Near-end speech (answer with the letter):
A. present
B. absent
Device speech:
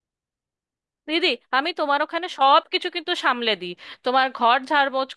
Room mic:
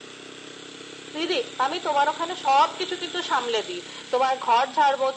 B